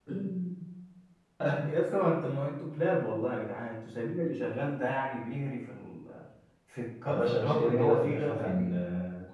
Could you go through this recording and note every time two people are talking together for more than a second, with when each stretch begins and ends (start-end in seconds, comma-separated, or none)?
7.1-8.8